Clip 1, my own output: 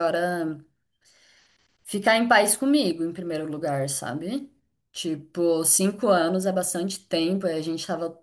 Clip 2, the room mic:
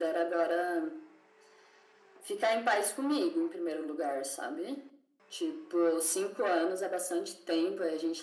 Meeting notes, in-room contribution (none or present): none